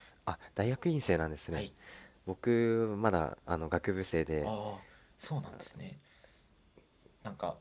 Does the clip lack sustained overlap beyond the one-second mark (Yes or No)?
Yes